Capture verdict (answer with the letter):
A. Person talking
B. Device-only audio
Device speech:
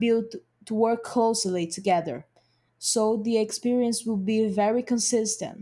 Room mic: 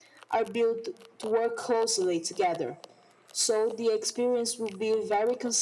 B